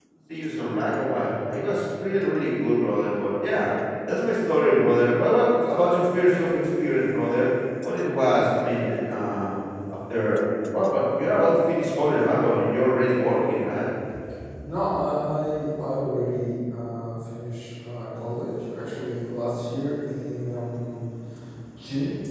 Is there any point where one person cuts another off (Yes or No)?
No